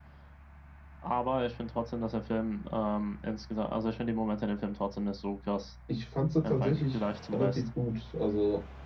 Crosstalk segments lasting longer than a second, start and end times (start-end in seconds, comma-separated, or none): 6.4-7.6